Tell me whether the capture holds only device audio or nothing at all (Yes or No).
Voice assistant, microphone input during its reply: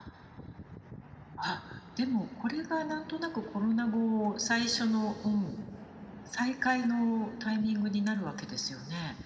Yes